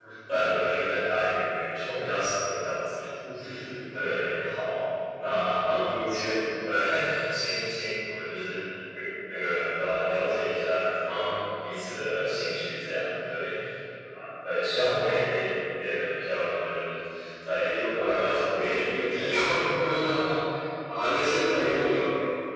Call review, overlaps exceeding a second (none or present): present